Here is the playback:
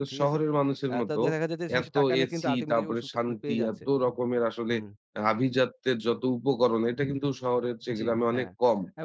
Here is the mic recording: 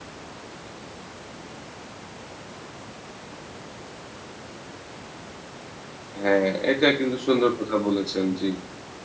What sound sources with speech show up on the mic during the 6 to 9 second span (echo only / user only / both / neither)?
user only